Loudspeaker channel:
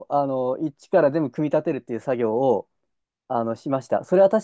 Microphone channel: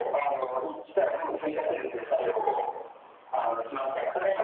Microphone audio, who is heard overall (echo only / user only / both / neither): echo only